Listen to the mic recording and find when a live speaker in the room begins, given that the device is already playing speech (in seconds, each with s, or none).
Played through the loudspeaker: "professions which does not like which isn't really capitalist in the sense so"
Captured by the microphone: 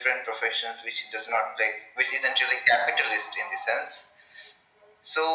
none